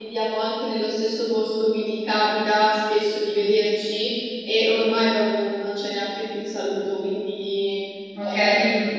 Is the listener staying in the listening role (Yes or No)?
No